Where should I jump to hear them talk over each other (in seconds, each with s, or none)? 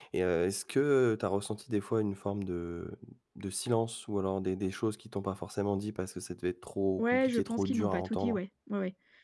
7.0 s